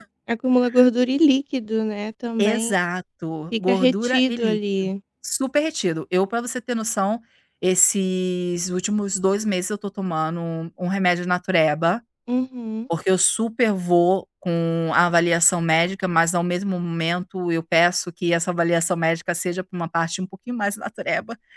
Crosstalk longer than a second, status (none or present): present